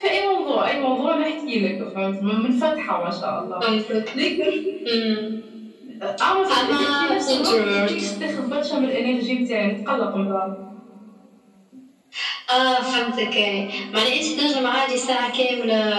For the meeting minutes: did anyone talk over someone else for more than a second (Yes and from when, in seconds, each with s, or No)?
Yes, from 6.5 s